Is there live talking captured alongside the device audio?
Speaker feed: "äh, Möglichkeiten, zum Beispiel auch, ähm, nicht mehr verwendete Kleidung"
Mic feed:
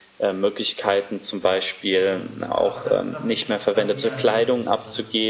Yes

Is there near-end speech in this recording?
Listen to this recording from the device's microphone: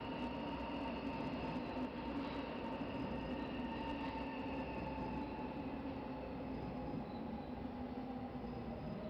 No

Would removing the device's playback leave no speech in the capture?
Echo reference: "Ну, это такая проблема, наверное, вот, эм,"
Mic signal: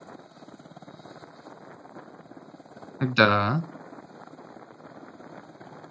No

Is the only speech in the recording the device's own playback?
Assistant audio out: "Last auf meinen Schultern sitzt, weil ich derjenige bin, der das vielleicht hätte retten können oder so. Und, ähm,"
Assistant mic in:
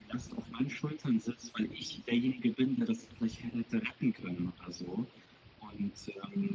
Yes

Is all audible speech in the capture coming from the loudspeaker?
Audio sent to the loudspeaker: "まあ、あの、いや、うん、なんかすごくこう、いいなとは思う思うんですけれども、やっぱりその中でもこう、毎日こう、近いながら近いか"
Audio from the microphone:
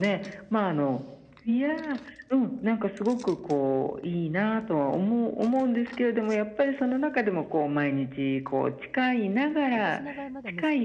No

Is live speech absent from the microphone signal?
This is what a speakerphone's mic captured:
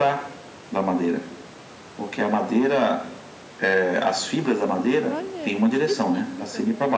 No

